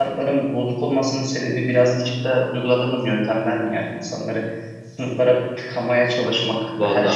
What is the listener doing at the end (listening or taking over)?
listening